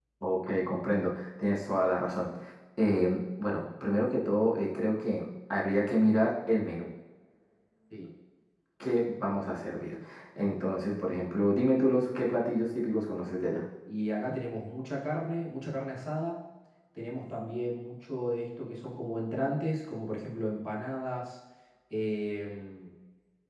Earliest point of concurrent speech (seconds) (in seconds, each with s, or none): none